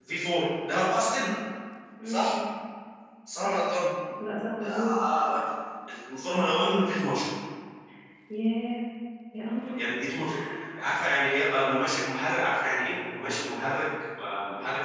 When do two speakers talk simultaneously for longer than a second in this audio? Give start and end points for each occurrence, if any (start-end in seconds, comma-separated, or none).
none